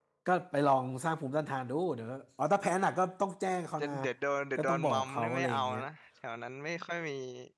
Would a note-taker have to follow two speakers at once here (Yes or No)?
Yes